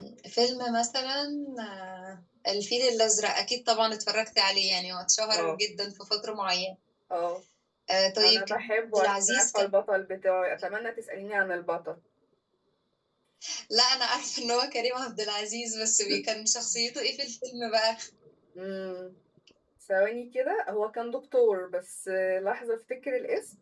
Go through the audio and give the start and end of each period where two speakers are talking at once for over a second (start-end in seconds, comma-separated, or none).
8.2-9.7